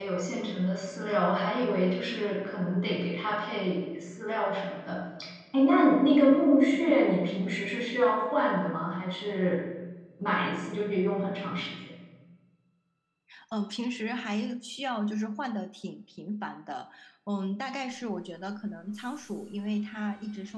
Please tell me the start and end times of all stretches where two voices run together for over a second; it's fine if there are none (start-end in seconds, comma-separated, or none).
none